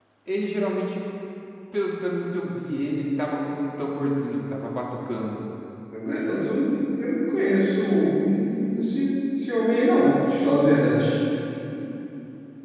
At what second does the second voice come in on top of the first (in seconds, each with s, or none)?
none